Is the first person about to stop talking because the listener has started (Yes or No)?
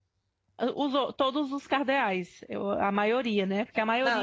Yes